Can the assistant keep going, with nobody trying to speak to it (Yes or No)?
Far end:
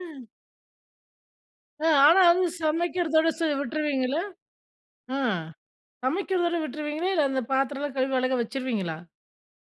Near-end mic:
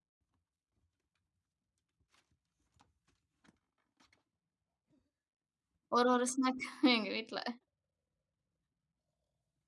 No